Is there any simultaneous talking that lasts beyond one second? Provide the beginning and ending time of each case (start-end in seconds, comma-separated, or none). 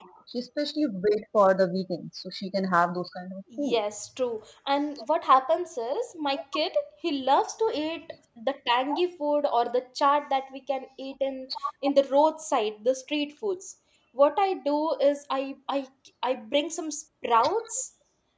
none